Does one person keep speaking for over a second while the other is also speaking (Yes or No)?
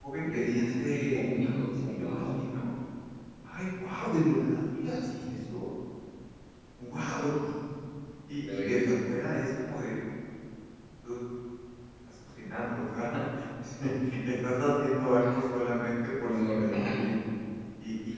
Yes